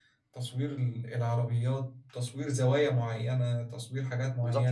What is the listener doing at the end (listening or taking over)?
taking over